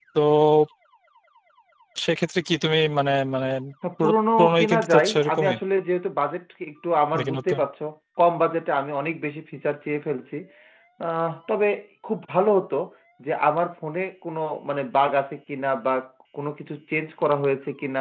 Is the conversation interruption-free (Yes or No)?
No